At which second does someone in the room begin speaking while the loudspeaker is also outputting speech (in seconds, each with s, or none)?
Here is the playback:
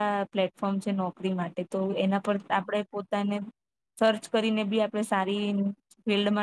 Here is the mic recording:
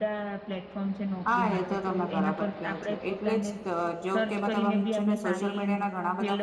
1.3 s